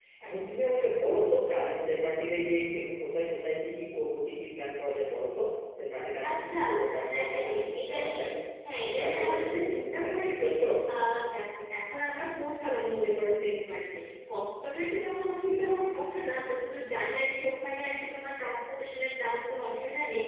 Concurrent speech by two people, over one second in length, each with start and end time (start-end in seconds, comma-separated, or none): 6.3-8.2, 8.8-10.4